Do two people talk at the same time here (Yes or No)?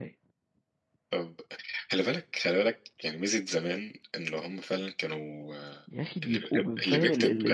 Yes